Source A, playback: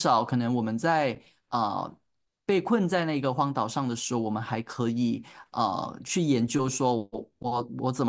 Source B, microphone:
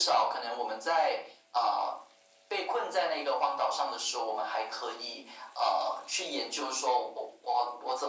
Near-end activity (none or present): none